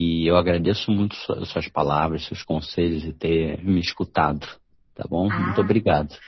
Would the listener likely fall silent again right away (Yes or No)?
No